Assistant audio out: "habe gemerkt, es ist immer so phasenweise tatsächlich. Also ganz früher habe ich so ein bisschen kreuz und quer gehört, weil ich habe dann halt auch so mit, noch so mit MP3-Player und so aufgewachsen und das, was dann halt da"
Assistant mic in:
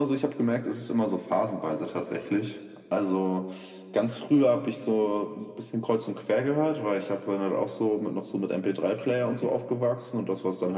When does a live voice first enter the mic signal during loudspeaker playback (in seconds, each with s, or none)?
none